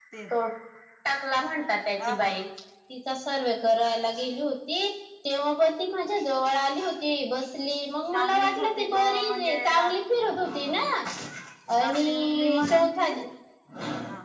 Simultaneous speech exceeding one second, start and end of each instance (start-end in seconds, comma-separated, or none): 8.1-9.9, 11.8-13.1